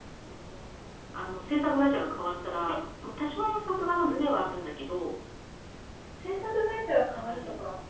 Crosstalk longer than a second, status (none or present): none